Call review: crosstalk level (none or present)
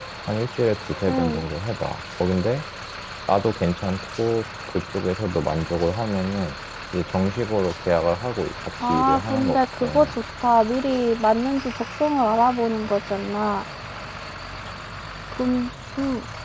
present